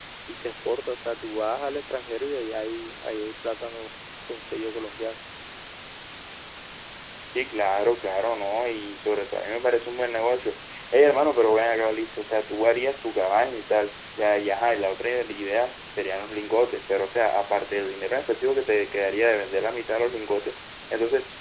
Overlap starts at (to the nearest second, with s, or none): none